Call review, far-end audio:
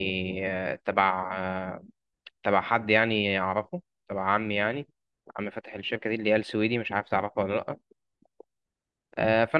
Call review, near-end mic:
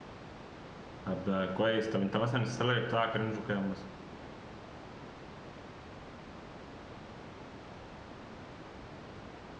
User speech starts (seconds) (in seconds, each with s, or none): 1.1 s